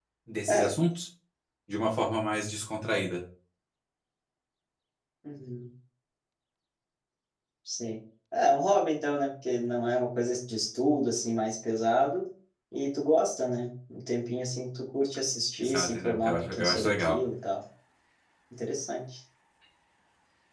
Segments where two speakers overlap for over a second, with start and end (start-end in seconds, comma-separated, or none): 15.6-17.2